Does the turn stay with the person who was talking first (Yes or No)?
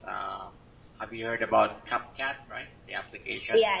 No